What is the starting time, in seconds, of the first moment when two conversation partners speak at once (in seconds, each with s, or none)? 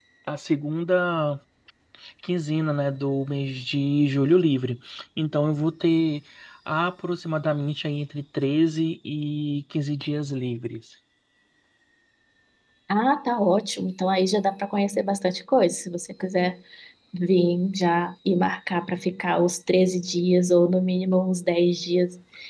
none